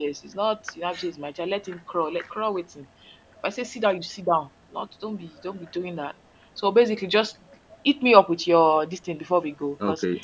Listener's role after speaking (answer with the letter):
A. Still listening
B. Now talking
B